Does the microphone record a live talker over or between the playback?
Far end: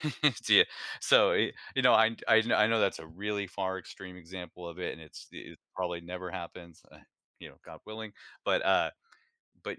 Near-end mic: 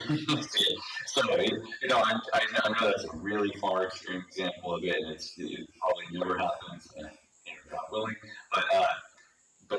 No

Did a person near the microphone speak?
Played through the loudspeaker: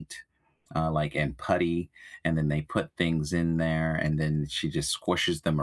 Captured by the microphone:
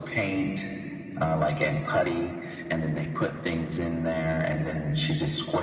No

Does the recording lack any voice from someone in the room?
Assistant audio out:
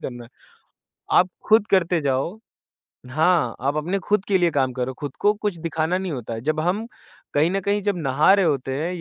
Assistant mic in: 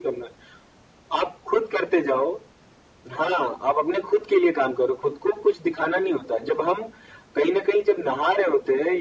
Yes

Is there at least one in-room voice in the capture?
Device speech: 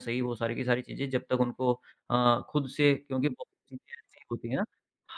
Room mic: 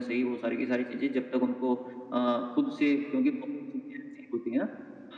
No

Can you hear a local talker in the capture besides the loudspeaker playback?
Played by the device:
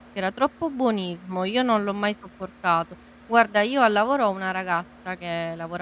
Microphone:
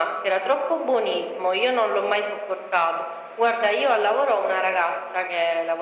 No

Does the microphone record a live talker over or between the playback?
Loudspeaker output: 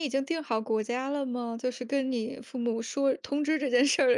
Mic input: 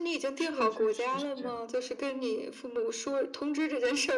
Yes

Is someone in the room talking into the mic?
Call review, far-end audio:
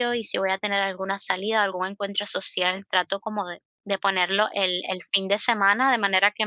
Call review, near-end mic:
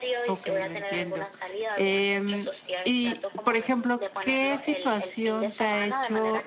Yes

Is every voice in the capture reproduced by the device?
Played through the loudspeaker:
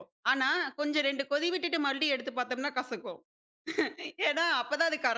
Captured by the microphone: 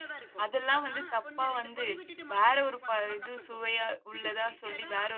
No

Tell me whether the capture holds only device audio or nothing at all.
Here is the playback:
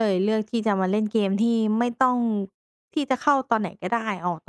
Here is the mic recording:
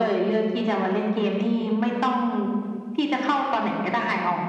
Yes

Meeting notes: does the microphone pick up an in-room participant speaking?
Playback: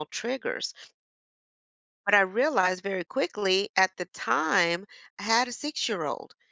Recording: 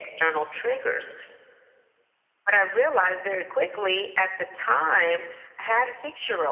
No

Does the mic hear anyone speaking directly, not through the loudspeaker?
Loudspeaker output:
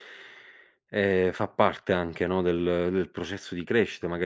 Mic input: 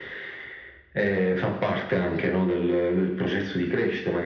No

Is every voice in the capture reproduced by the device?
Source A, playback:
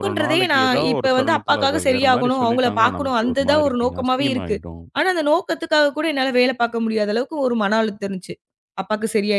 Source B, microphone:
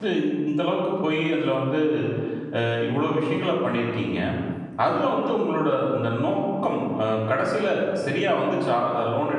No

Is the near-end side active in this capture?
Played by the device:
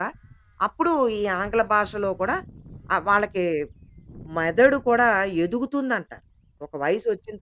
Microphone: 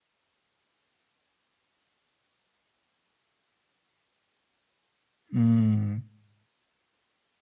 Yes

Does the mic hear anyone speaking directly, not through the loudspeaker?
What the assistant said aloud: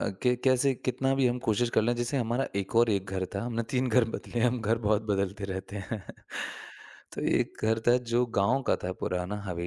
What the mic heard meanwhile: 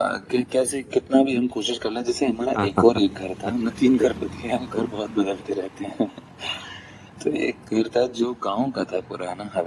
Yes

